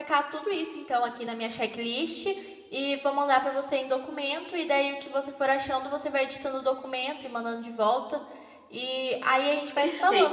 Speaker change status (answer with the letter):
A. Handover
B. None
A